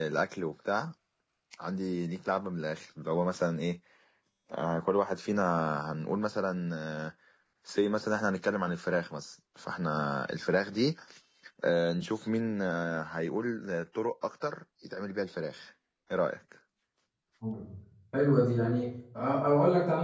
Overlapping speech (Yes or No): No